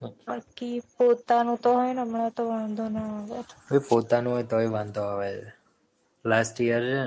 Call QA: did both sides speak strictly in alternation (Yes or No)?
Yes